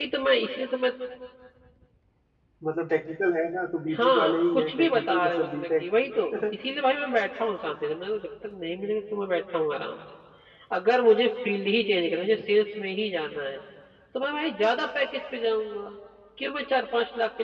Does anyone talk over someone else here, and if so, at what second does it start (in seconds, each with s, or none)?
3.9 s